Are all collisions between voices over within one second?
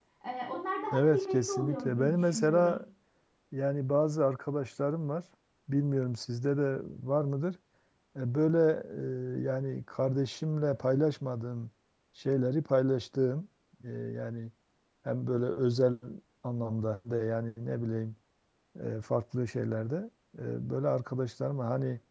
No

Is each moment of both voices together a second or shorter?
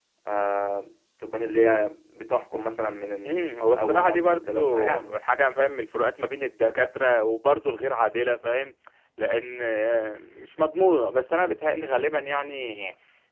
No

